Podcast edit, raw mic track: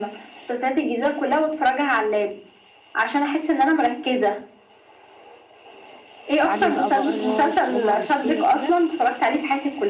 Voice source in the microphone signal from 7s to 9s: both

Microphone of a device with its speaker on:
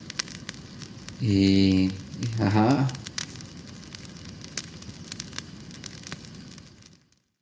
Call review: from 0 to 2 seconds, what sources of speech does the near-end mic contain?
user only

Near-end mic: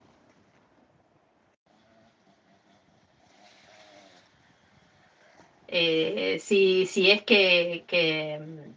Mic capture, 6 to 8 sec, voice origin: user only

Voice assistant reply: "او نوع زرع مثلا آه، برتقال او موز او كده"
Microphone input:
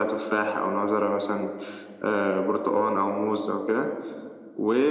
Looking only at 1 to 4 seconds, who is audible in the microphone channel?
echo only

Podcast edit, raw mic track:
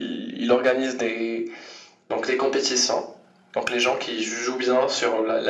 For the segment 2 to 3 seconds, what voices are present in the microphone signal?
echo only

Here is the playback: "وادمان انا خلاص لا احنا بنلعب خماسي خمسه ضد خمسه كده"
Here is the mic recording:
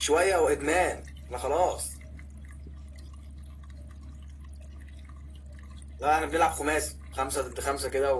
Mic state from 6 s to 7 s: echo only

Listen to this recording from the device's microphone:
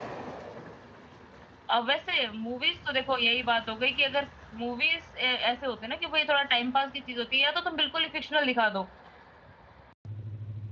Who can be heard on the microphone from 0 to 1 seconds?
neither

